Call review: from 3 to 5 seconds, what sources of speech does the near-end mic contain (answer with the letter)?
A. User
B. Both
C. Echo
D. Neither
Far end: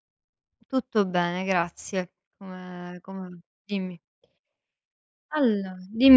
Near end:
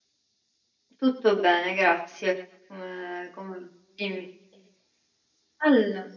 C